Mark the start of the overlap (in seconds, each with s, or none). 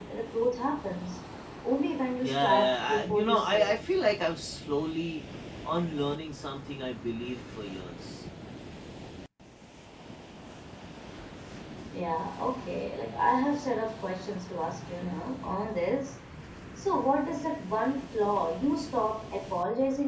2.2 s